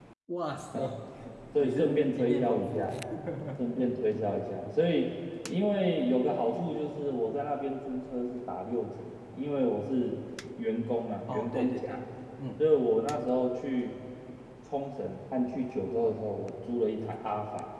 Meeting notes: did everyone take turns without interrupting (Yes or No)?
No